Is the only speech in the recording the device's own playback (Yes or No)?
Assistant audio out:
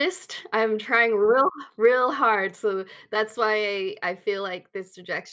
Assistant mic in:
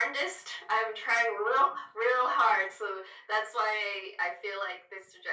Yes